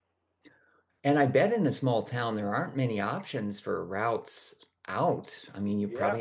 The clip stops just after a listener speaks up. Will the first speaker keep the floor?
No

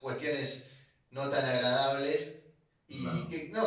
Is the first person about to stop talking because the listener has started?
No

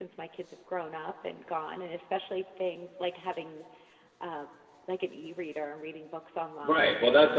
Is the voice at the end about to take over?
Yes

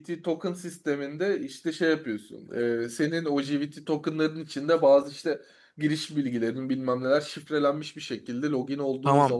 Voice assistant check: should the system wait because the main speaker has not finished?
No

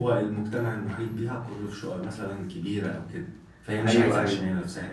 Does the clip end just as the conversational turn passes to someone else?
No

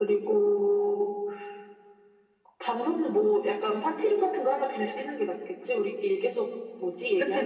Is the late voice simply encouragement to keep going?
No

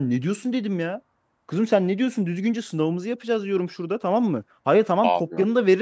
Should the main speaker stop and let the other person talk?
No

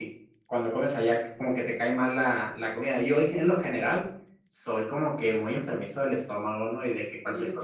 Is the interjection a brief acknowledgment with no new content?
Yes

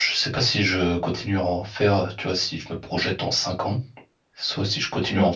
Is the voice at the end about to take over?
No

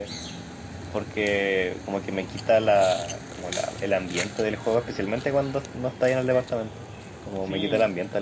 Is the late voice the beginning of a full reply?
No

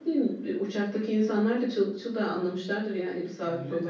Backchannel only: No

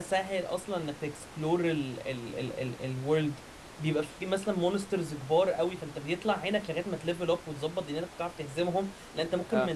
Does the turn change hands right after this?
No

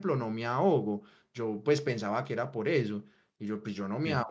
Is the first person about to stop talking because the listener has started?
No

